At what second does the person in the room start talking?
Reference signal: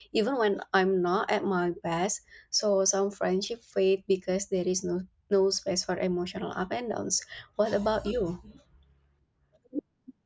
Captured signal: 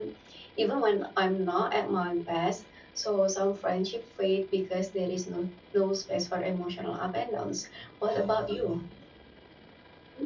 none

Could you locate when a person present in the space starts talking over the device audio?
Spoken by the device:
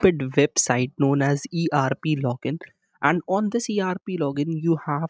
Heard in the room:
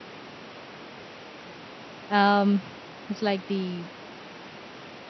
2.1 s

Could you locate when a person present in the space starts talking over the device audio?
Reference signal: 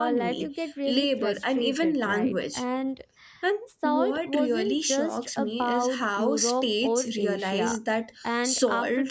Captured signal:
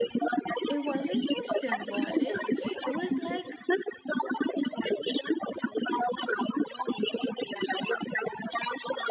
0.7 s

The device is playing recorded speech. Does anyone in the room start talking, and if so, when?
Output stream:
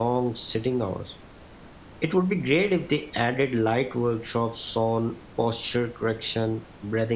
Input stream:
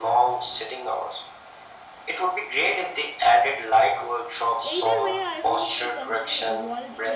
4.6 s

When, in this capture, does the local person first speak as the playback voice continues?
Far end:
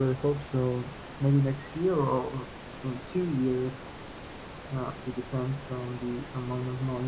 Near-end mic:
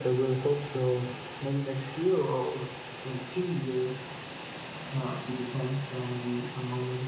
none

